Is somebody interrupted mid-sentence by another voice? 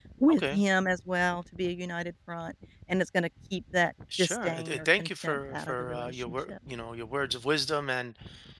Yes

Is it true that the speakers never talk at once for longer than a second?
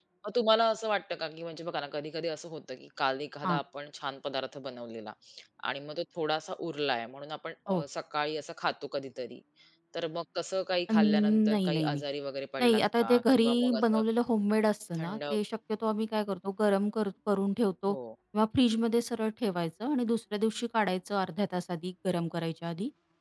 No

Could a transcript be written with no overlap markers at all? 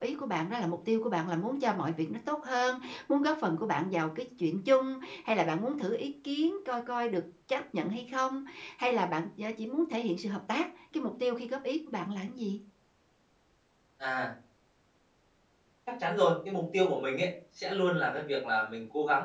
Yes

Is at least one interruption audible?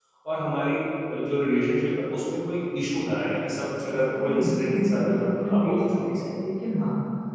Yes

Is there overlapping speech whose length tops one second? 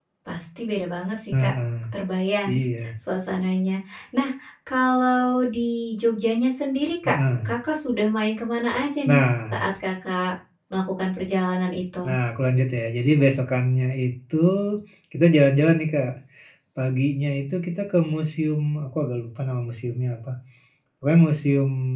No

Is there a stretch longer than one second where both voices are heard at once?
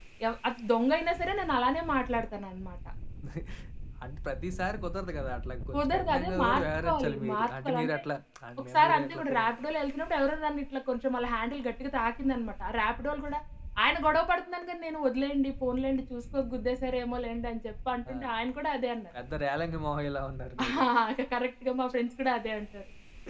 Yes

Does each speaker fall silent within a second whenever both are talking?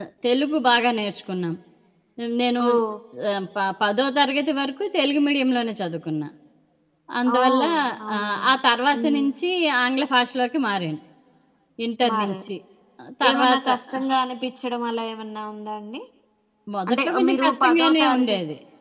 No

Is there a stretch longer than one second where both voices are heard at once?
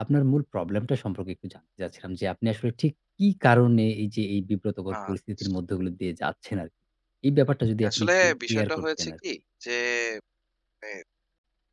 Yes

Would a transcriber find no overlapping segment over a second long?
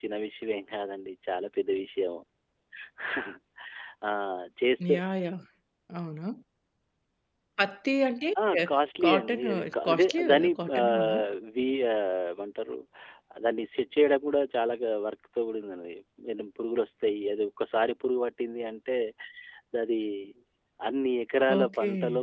No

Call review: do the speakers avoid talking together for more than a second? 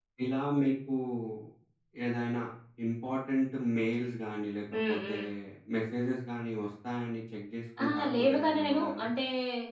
No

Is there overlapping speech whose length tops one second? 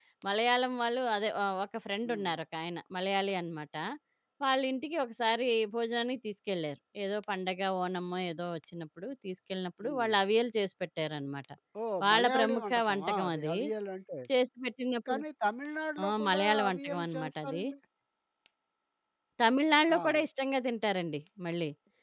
Yes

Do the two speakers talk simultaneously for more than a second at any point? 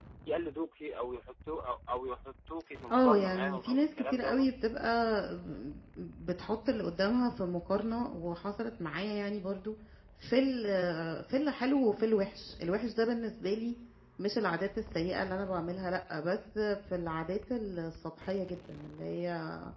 Yes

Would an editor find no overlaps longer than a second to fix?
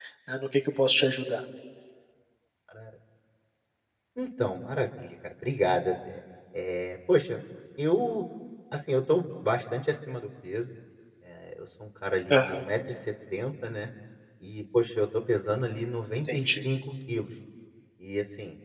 Yes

